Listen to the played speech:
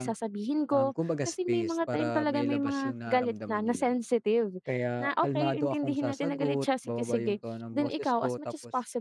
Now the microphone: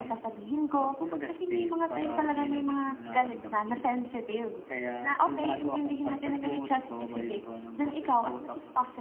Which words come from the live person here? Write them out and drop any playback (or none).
none